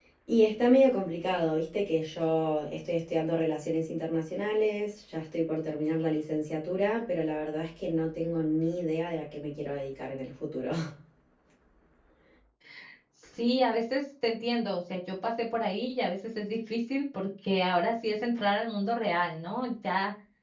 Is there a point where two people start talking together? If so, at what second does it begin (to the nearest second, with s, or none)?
none